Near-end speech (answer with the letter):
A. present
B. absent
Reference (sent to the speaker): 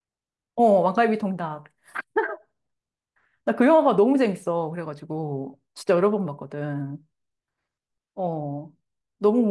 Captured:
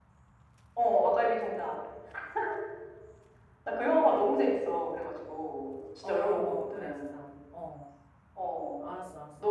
A